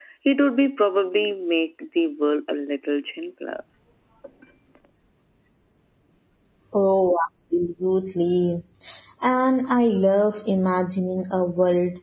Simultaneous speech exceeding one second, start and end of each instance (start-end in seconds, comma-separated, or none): none